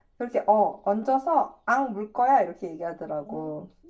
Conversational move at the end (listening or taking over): taking over